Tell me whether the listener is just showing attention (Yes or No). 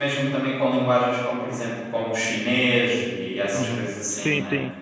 No